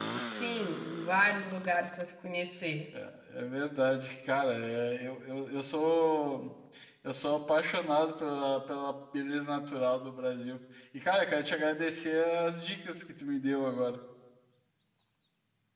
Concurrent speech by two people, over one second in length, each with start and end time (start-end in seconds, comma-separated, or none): none